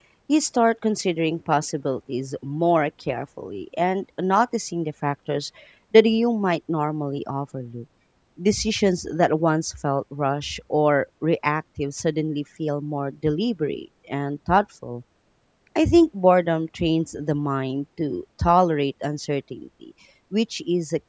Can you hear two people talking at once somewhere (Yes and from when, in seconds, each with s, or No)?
No